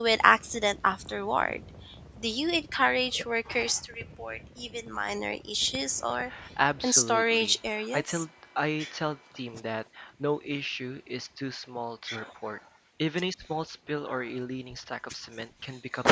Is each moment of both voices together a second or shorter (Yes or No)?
No